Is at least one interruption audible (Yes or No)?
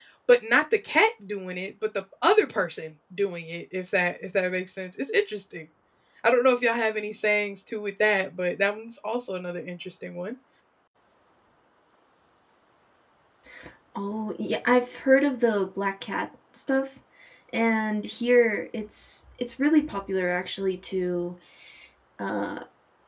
No